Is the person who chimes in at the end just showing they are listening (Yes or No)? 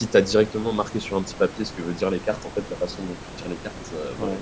Yes